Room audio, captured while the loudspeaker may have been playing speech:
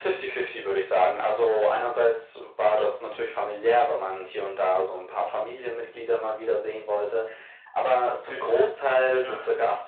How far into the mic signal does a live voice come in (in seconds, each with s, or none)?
8.2 s